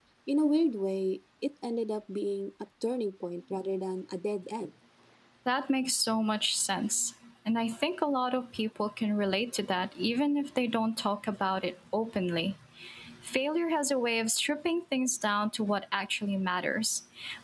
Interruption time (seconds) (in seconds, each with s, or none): none